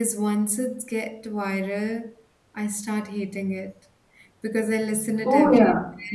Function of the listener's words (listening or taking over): listening